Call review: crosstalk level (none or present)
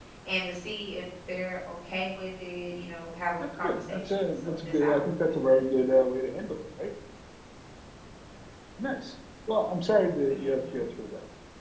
present